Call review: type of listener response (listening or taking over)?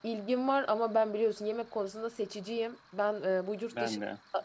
listening